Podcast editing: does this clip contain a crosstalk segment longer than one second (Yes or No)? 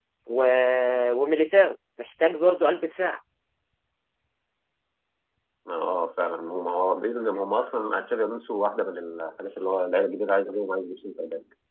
No